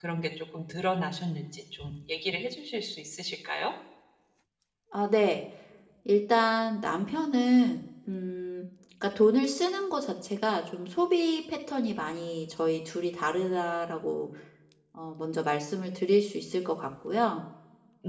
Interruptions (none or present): none